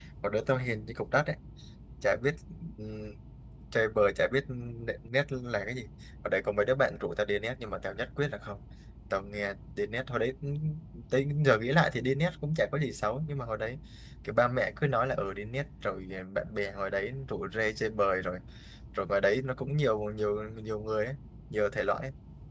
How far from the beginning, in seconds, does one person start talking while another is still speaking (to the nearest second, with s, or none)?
none